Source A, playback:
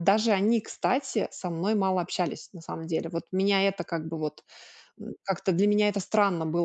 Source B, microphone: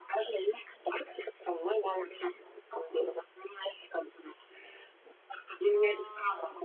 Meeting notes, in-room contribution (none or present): present